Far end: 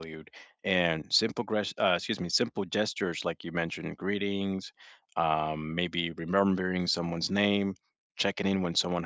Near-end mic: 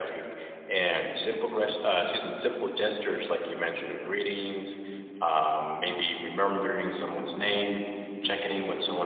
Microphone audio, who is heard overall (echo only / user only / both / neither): echo only